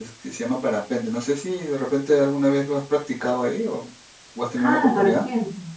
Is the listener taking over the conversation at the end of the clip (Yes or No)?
Yes